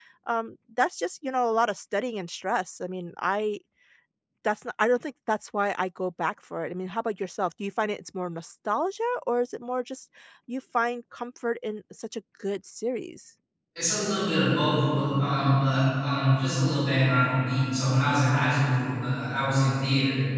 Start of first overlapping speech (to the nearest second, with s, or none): none